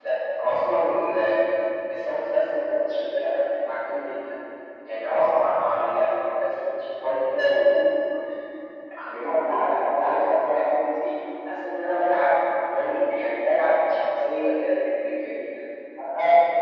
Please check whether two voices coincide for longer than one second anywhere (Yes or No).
Yes